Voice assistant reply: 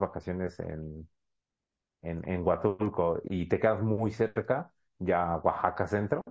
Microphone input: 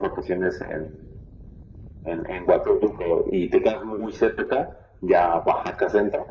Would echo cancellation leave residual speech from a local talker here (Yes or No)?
No